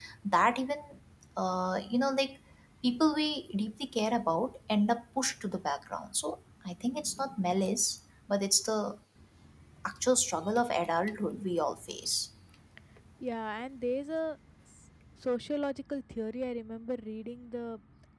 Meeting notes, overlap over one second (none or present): none